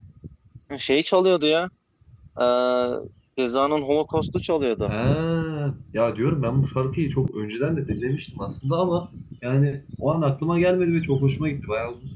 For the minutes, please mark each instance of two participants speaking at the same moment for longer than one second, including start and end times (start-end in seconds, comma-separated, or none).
none